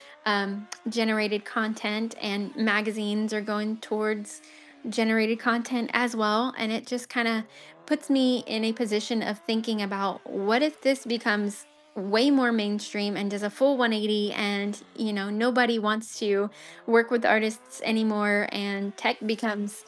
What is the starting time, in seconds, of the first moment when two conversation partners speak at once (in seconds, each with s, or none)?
none